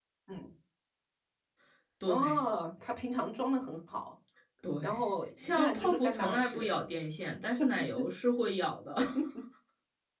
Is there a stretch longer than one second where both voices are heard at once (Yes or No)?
Yes